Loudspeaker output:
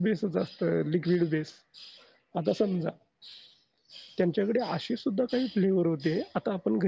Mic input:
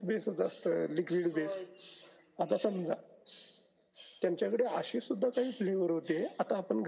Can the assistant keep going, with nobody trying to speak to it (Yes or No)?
No